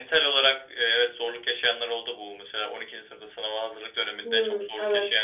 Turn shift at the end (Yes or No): No